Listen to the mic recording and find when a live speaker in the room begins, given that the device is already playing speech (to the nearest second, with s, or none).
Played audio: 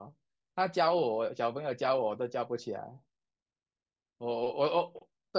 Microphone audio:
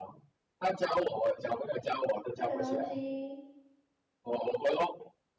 2 s